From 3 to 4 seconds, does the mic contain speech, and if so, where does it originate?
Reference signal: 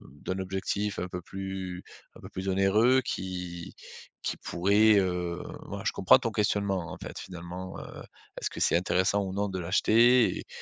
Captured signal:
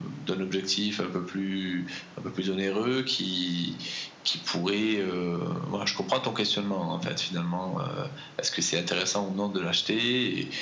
echo only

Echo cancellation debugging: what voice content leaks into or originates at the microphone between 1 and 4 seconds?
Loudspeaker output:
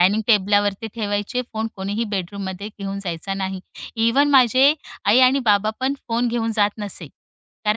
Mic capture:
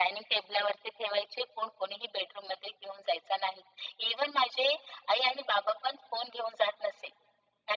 echo only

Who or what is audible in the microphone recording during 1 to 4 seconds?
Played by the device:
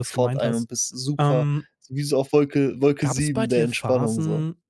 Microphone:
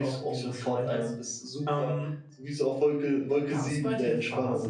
echo only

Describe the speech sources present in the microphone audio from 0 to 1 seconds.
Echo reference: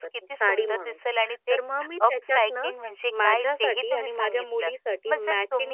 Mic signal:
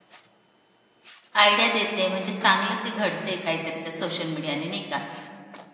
neither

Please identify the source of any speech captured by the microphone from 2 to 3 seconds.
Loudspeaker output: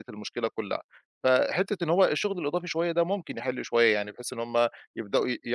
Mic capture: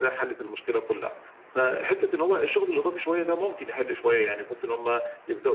echo only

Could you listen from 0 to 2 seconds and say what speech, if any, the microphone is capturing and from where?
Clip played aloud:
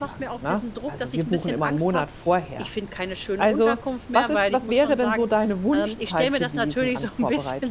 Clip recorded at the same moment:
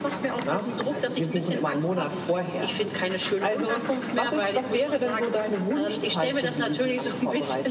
echo only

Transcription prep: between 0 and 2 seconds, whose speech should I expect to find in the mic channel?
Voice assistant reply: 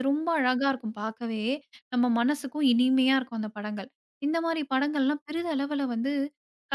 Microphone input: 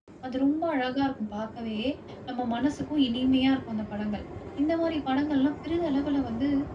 echo only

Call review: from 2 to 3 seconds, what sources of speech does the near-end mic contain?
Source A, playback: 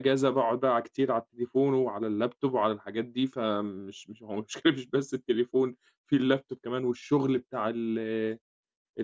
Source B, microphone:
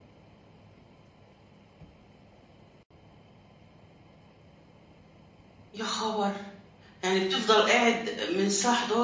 neither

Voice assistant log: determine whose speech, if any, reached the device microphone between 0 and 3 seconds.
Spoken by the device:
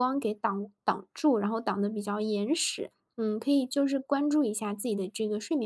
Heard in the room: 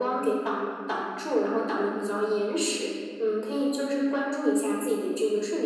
echo only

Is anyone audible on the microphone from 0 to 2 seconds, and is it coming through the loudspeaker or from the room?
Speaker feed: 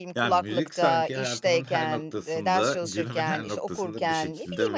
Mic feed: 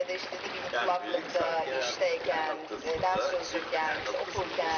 echo only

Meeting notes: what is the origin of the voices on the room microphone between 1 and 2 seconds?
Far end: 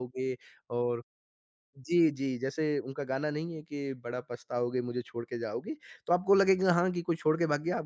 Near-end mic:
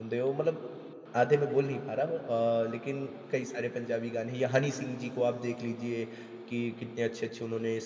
user only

